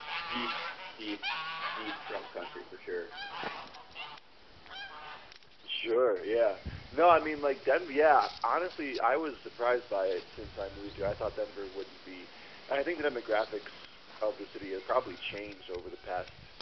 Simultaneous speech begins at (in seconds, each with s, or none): none